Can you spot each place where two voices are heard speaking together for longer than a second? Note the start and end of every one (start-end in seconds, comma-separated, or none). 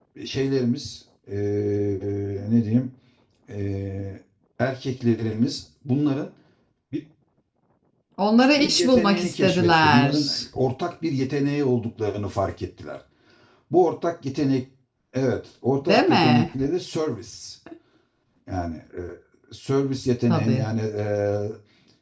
8.6-10.2